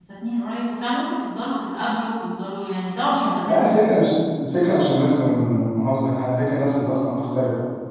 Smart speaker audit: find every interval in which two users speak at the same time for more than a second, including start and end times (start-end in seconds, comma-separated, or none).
none